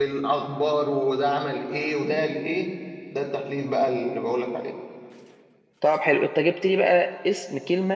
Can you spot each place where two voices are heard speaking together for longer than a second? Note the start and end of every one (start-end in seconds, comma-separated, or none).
none